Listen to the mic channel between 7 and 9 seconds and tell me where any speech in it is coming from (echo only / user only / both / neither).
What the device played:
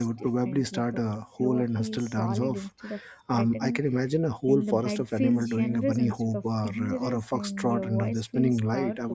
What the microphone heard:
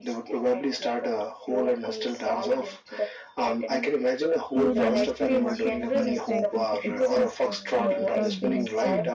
both